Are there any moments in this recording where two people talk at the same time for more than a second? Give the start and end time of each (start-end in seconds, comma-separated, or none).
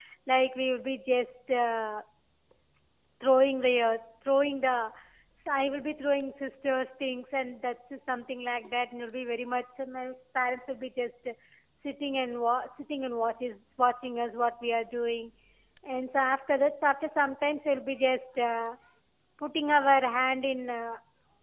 none